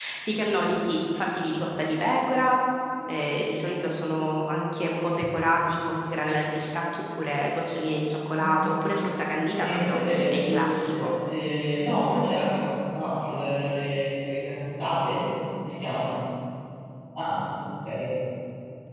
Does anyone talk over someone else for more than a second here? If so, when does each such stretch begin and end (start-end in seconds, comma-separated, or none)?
9.5-11.1